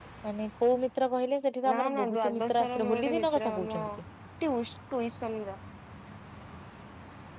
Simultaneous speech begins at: 1.6 s

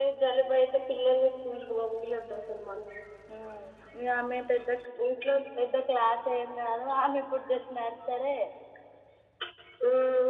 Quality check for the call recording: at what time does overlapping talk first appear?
none

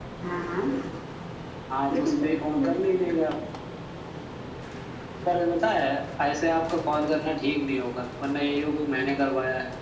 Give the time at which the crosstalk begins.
1.9 s

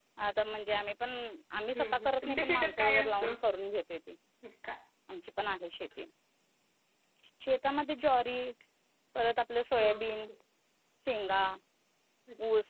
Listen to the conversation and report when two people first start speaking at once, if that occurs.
1.7 s

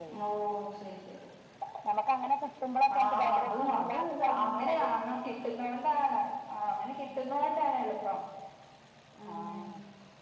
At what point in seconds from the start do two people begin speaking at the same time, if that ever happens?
3.0 s

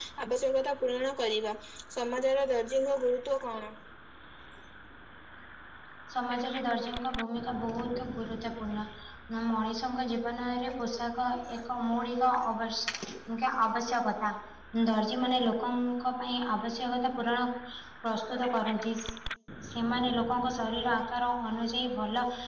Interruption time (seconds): none

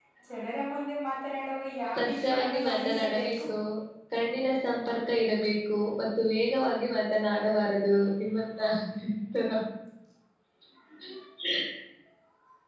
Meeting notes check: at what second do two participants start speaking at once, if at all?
2.0 s

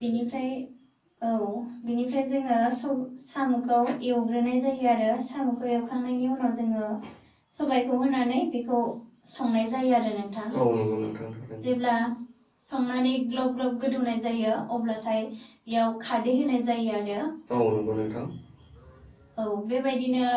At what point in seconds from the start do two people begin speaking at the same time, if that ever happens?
none

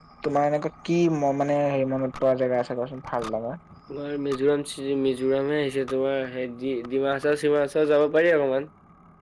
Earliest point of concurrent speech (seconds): none

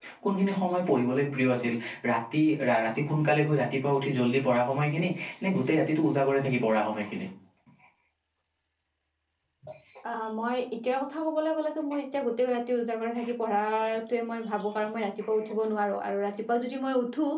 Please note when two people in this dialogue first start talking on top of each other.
none

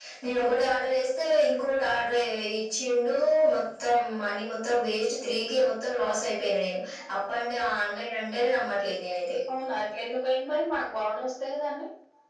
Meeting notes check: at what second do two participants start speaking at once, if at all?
none

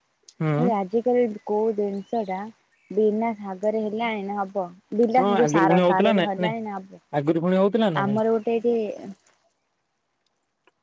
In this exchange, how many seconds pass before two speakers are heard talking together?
5.2 s

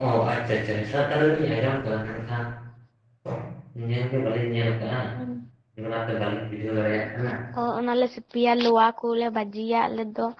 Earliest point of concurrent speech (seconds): none

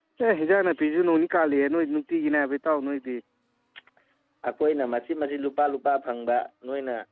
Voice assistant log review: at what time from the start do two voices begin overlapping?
none

